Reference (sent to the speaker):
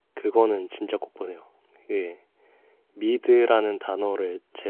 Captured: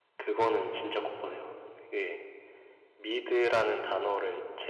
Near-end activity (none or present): none